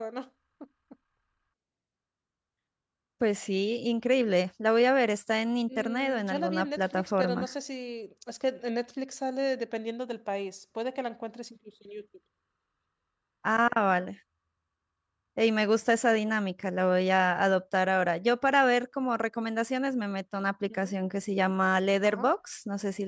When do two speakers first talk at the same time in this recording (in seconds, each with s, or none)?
5.8 s